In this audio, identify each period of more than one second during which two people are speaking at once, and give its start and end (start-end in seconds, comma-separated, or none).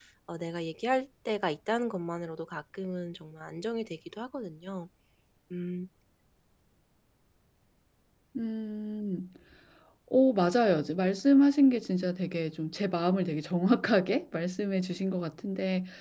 none